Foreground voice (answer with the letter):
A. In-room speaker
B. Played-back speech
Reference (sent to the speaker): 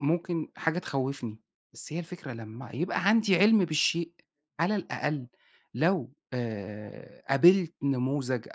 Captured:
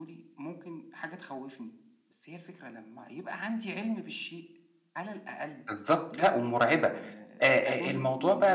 A